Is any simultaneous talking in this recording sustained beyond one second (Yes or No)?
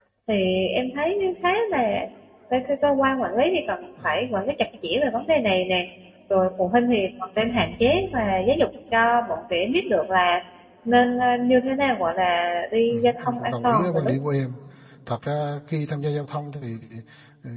Yes